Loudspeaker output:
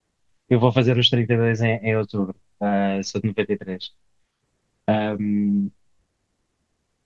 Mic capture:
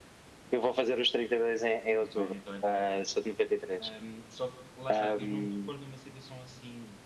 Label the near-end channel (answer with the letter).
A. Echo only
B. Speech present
B